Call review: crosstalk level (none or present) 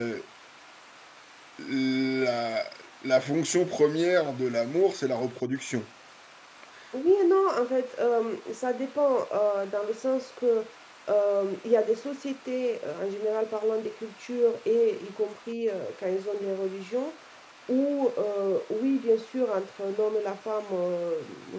none